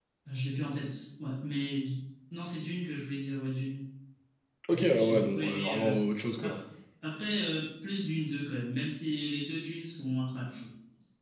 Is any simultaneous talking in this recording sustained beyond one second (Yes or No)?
Yes